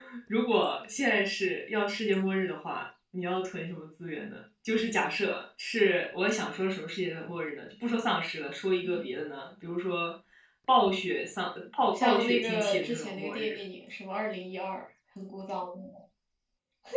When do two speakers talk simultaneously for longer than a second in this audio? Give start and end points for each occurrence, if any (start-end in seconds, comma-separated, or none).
12.0-13.5